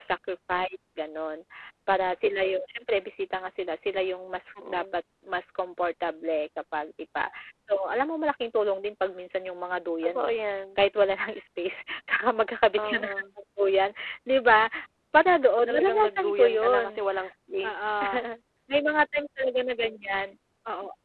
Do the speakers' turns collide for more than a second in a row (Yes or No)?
Yes